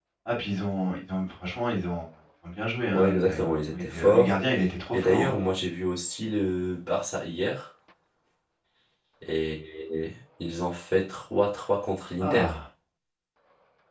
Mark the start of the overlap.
3 s

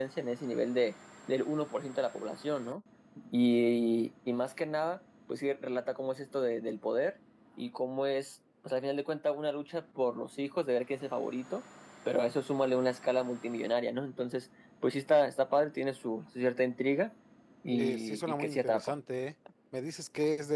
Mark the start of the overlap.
18 s

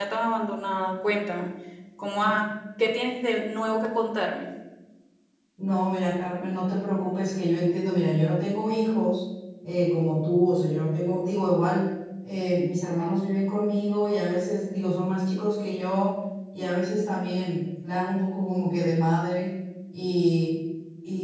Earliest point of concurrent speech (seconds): none

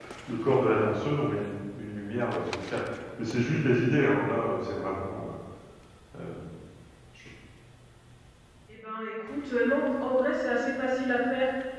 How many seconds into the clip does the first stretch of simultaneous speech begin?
none

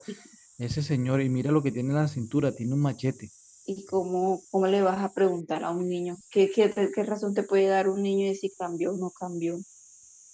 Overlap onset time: none

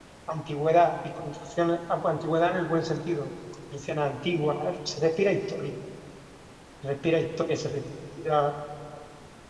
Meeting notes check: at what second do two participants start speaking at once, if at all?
none

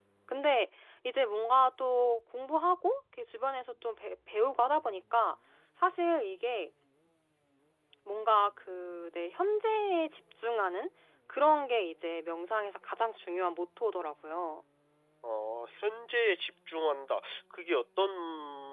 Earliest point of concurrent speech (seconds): none

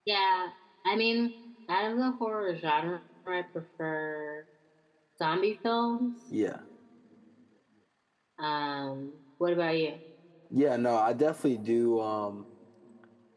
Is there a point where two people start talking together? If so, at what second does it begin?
none

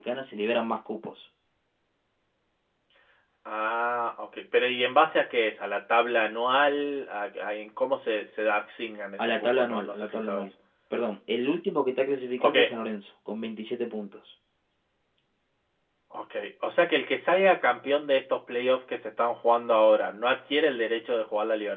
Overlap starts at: 9 s

